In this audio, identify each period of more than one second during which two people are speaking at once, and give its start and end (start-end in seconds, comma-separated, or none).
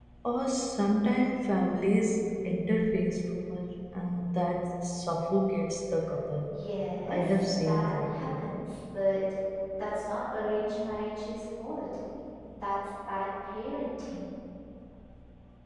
7.1-8.4